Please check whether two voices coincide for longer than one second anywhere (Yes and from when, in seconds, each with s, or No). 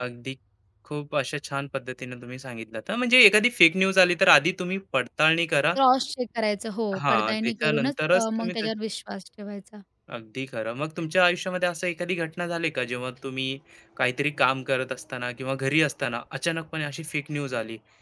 Yes, from 6.9 s